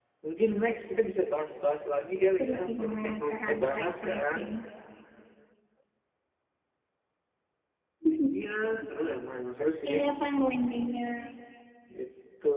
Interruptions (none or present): present